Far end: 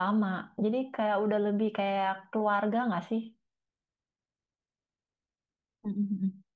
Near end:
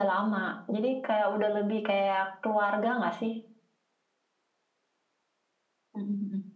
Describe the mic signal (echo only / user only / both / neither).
echo only